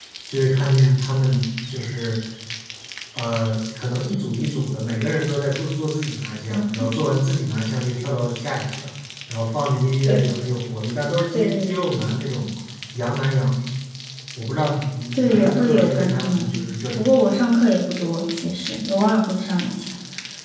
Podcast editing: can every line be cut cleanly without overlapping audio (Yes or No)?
No